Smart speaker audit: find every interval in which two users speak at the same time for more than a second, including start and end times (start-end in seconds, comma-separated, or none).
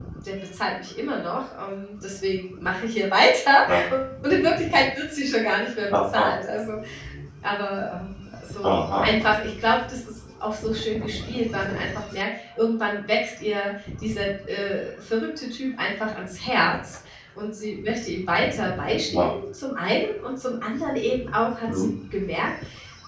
none